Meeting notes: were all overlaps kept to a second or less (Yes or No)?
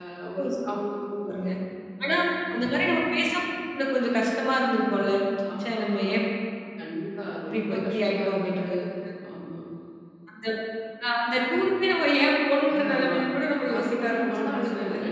No